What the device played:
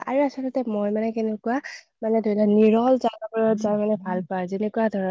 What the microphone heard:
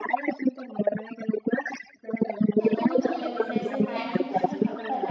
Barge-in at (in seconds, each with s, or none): 2.6 s